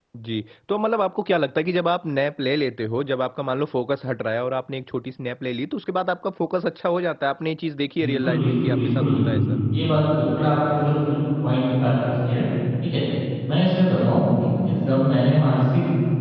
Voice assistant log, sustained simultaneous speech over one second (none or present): present